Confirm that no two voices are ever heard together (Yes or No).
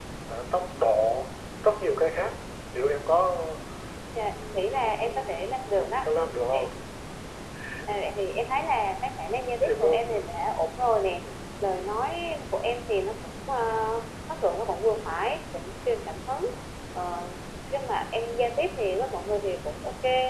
No